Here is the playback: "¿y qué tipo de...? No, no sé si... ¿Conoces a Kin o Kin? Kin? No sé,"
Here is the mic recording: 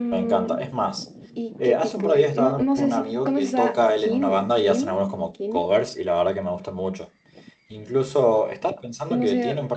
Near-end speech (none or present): present